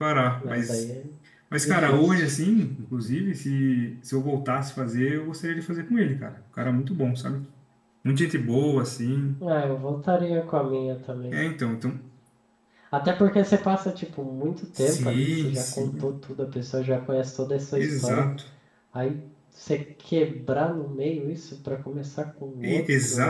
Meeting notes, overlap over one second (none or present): present